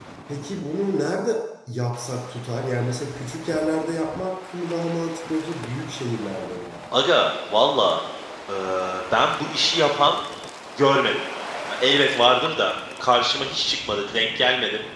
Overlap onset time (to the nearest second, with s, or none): none